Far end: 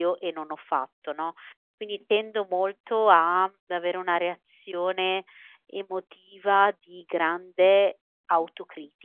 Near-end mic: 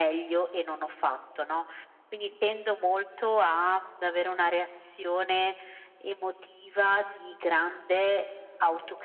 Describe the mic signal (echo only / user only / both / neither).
echo only